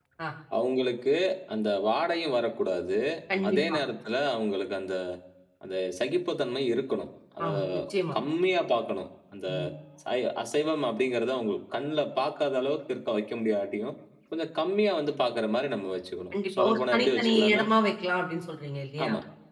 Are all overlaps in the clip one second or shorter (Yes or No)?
No